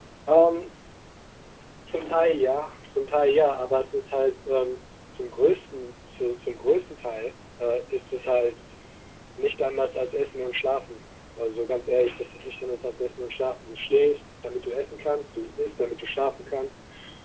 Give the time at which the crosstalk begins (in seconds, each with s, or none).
none